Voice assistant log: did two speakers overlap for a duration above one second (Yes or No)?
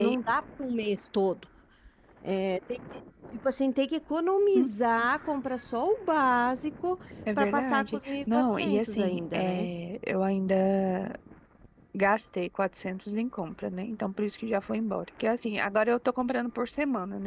Yes